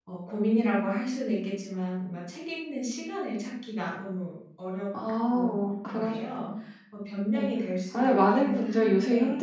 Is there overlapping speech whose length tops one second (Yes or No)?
Yes